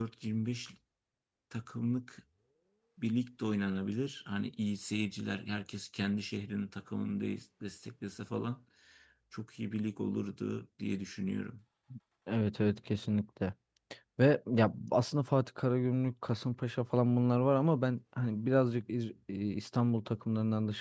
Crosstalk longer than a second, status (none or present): none